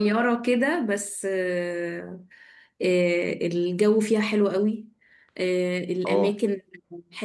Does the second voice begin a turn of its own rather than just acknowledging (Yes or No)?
No